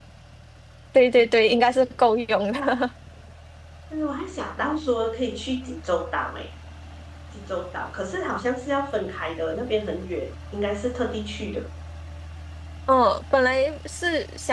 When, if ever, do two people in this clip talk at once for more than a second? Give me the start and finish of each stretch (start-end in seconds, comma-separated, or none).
none